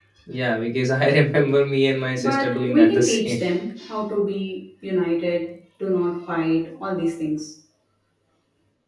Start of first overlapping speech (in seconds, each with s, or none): 2.2 s